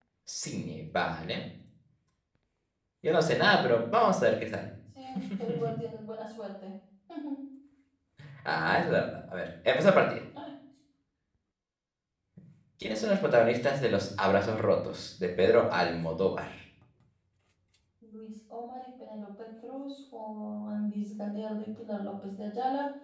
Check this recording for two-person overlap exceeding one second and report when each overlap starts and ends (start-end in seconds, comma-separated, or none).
none